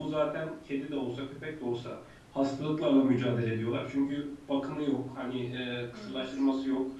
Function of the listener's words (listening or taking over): listening